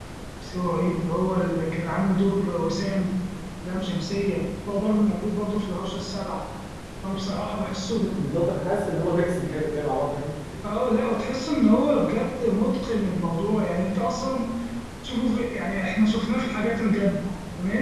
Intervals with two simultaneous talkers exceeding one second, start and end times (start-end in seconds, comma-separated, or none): none